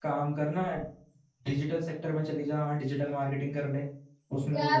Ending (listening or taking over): taking over